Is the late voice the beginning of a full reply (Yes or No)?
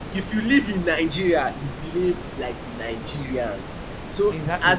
No